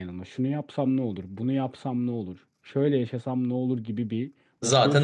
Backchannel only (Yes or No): Yes